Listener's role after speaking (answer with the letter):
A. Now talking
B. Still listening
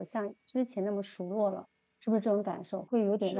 A